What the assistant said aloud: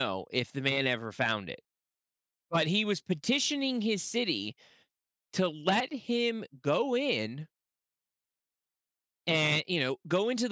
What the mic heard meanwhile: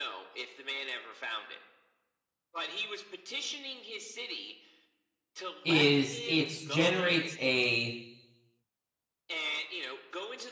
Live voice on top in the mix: Yes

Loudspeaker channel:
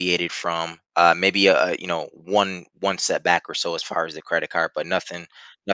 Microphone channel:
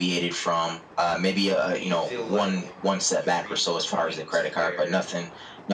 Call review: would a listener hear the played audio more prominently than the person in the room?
Yes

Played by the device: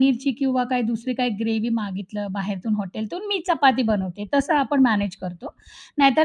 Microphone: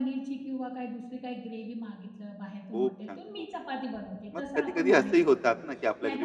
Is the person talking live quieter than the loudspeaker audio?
No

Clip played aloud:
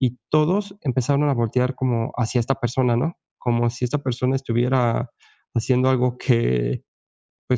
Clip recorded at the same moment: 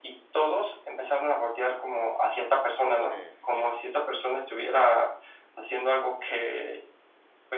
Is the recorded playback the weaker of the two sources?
No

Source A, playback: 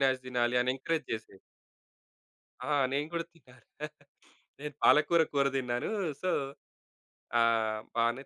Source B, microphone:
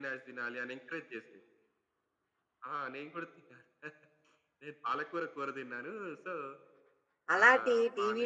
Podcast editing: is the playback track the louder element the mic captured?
No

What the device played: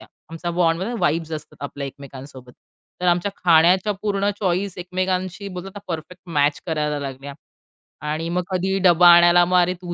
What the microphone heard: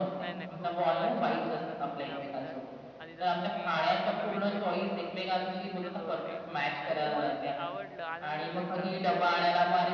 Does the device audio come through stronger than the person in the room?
Yes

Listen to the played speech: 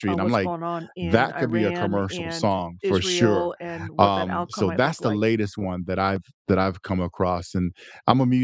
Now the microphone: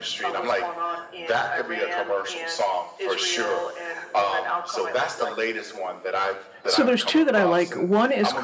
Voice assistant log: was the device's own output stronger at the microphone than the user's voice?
No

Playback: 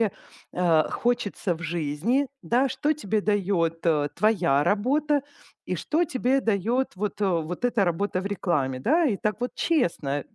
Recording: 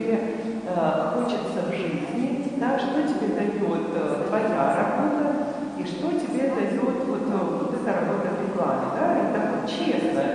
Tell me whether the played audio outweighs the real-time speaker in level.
Yes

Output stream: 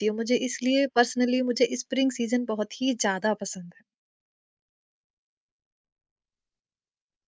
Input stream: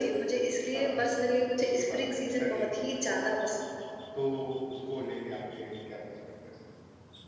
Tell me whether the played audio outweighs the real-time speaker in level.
Yes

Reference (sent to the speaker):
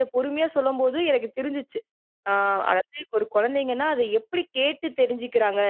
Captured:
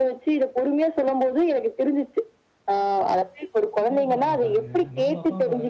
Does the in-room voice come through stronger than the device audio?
No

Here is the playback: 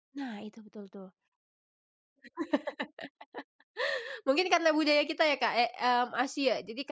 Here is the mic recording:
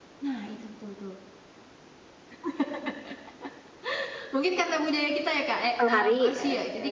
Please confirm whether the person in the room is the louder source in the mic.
Yes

